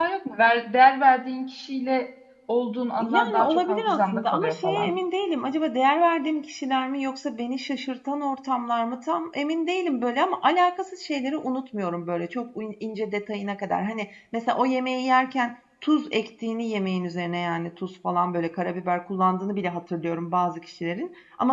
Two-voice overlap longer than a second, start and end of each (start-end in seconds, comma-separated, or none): 3.0-4.9